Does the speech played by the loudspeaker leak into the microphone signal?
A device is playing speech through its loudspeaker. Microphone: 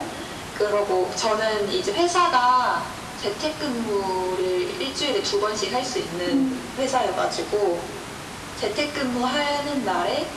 Yes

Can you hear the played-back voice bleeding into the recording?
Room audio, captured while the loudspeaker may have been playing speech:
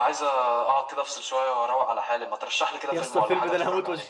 Yes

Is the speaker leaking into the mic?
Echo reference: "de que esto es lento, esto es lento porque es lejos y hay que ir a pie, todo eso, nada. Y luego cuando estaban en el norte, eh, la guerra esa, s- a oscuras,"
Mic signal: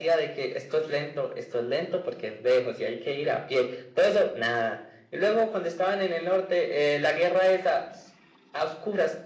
Yes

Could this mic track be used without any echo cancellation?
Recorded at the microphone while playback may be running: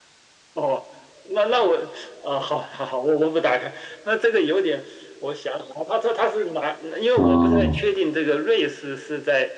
No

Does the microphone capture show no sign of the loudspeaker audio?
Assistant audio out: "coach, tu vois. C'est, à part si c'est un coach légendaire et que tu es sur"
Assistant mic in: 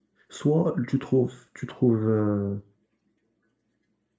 Yes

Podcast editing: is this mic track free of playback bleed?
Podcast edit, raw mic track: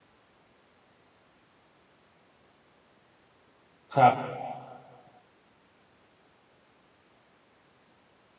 Yes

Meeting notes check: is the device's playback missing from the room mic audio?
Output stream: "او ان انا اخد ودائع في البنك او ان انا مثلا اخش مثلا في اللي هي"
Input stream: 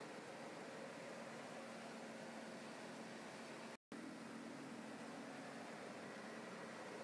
Yes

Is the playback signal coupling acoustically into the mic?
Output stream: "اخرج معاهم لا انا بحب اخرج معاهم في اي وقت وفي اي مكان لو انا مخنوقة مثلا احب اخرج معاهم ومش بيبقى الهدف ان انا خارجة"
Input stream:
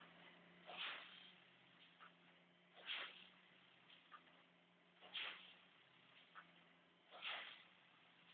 No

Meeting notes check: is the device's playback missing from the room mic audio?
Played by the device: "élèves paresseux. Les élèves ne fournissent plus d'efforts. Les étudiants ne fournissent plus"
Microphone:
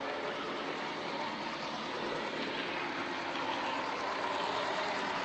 Yes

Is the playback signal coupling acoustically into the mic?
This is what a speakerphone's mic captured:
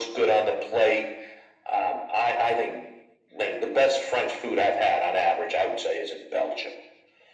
Yes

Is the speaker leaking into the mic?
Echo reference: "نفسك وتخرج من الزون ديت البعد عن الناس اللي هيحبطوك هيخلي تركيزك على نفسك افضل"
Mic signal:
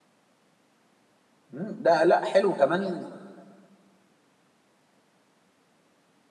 No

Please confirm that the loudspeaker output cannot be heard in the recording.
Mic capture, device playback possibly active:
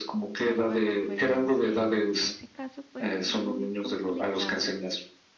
No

